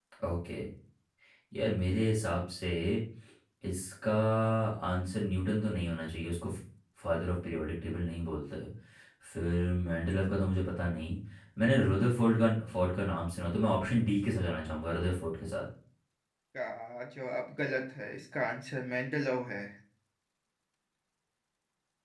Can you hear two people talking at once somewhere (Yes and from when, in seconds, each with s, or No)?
No